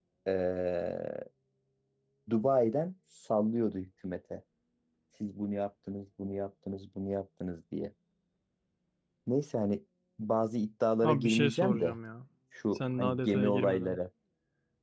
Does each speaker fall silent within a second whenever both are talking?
No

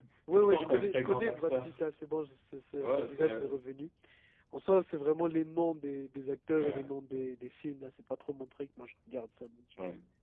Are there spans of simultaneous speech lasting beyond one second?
Yes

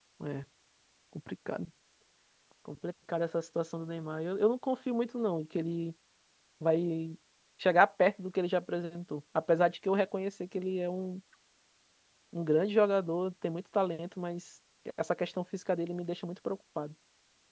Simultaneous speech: No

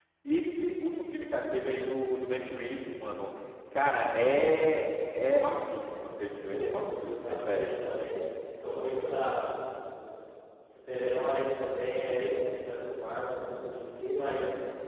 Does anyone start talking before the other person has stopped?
Yes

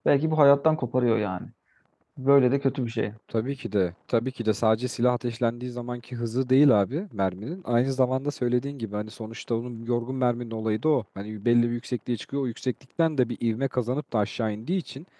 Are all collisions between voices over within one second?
Yes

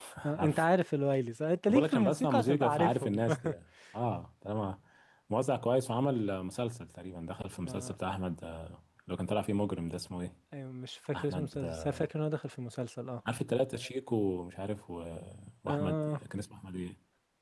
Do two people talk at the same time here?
Yes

